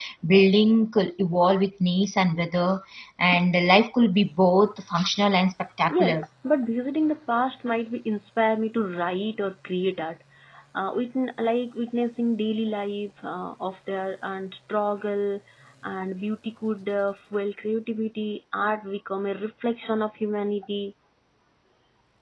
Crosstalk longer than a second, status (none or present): none